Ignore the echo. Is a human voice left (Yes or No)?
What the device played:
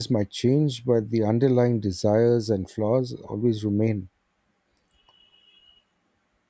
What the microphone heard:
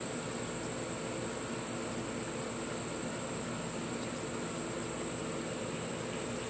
No